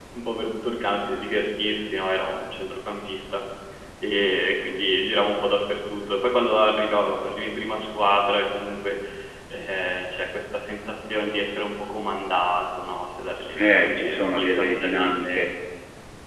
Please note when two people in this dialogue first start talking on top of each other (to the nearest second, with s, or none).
14 s